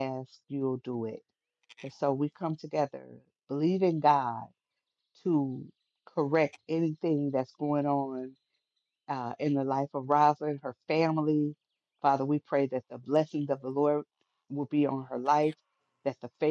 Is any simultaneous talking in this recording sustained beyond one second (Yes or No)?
No